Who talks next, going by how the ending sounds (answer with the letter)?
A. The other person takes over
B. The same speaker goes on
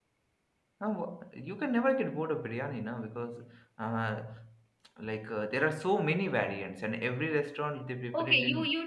A